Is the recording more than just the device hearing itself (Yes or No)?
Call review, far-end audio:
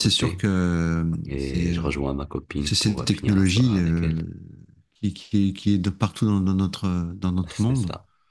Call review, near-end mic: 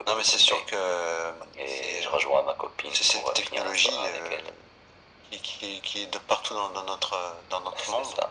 No